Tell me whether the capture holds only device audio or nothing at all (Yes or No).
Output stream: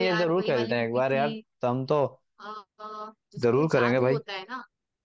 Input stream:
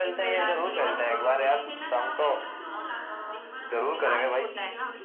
No